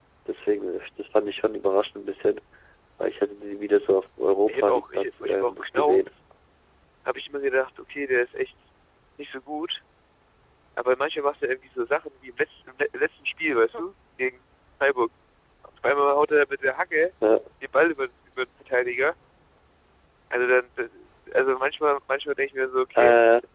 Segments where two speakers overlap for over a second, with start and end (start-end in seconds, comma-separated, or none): 4.5-6.0